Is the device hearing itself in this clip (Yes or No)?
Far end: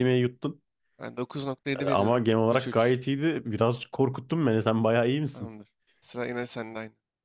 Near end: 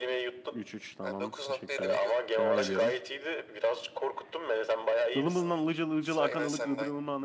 Yes